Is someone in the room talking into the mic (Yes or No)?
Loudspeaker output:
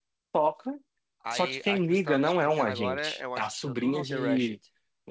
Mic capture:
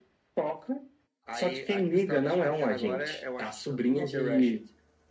No